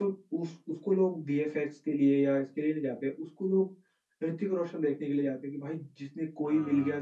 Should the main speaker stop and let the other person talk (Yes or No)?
No